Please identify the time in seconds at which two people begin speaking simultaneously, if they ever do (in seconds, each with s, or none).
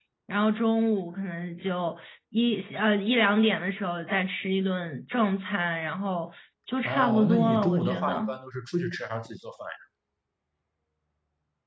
6.8 s